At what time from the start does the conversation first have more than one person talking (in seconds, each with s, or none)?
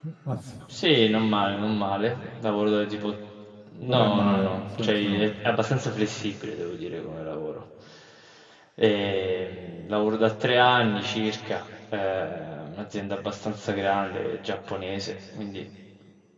3.8 s